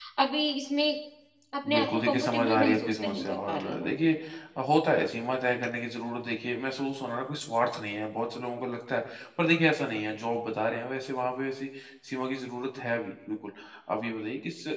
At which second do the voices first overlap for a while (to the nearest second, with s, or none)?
2 s